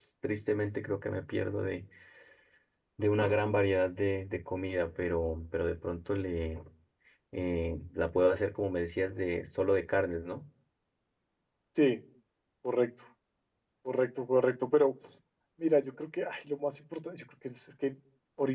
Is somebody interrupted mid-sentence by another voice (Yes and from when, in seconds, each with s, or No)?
No